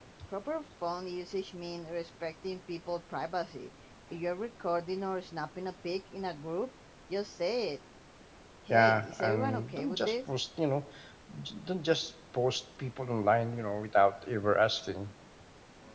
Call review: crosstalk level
present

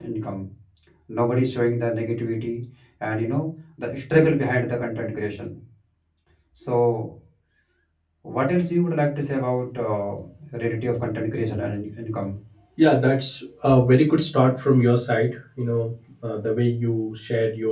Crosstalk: none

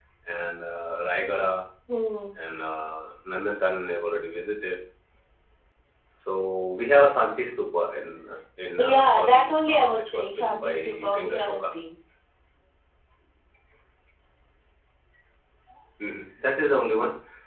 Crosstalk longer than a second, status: present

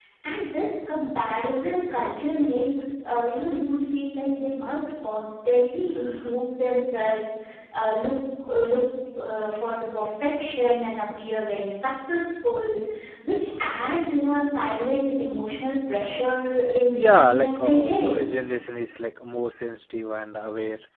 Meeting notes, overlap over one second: present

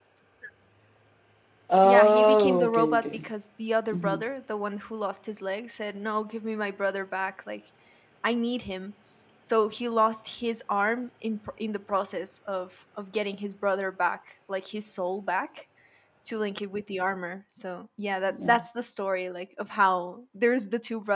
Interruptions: present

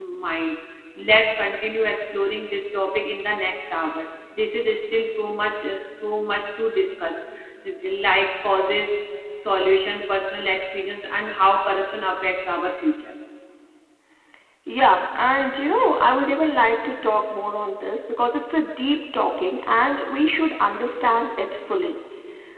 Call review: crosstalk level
none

